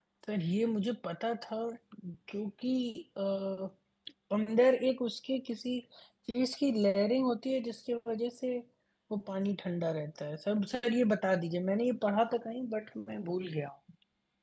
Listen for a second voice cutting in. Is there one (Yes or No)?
No